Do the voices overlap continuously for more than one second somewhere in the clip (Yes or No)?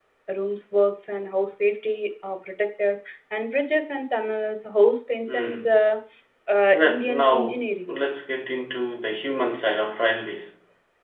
Yes